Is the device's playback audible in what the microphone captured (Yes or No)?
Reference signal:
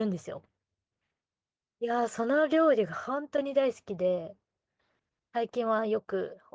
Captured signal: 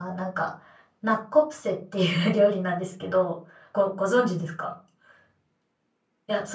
No